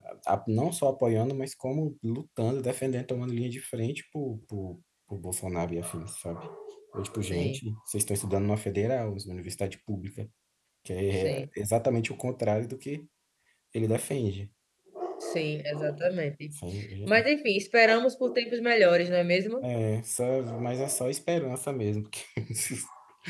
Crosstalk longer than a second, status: none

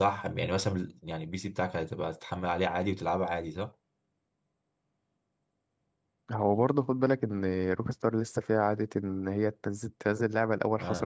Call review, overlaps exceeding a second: none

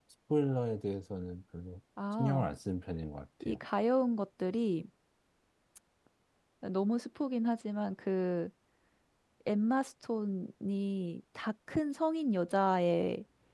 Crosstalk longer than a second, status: none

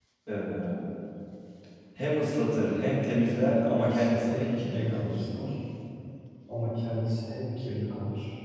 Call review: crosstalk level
present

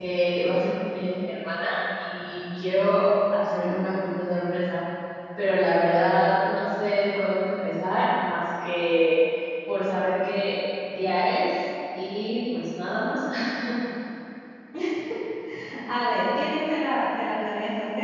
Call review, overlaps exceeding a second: none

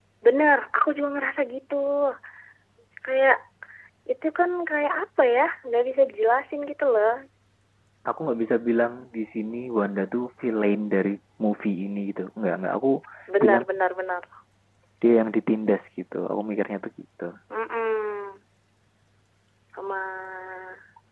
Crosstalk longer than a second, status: none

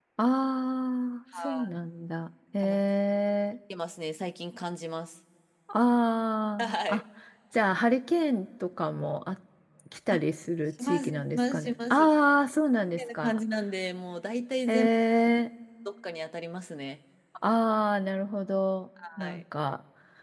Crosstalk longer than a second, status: present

